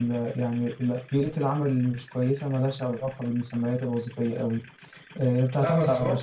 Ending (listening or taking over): taking over